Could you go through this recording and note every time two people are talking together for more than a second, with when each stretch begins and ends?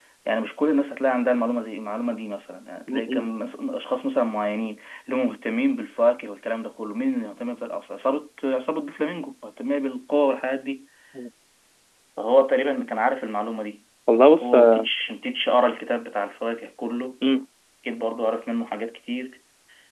none

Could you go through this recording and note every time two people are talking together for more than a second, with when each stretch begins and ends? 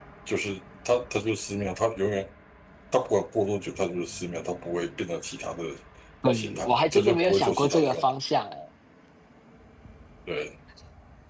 6.3-8.1

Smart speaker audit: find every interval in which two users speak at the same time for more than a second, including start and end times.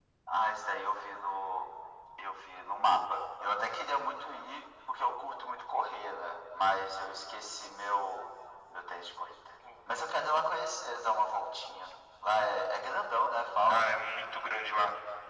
none

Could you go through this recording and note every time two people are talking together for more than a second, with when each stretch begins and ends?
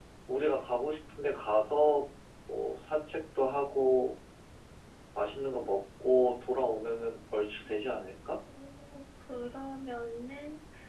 none

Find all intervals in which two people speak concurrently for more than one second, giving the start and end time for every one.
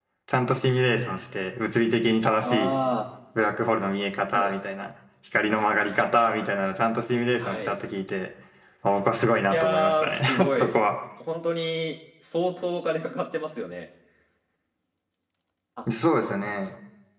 9.5-10.8

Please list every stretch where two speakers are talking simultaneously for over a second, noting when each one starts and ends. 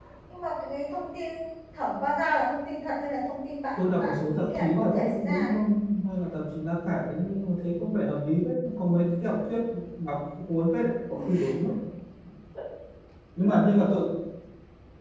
3.8-5.5

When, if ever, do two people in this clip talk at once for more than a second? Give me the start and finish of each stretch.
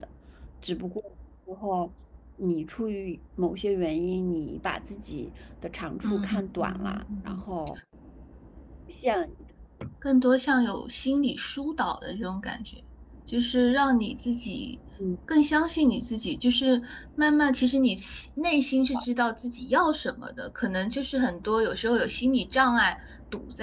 6.0-7.4

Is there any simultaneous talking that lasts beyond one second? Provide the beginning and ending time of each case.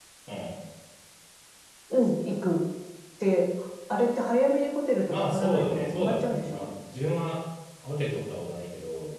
5.1-6.7

